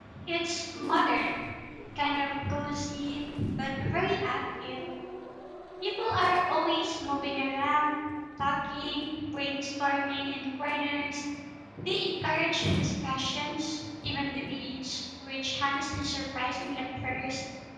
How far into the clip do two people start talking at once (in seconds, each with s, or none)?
none